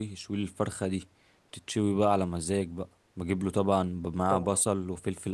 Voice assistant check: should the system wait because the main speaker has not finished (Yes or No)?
Yes